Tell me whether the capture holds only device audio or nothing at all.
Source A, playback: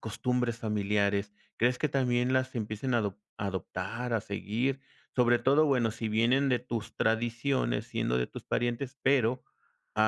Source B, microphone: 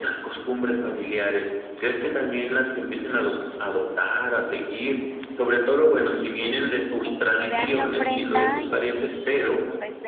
No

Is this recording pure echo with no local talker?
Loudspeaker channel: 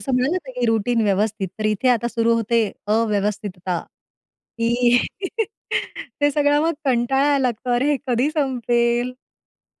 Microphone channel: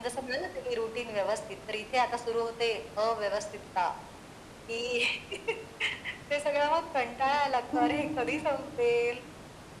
No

